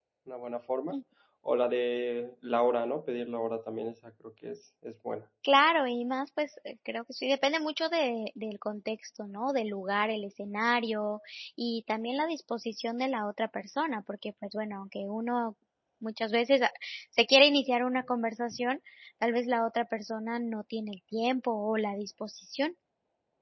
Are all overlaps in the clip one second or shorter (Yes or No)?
Yes